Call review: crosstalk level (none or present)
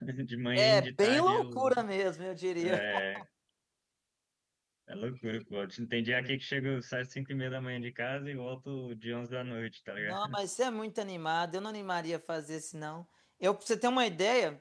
present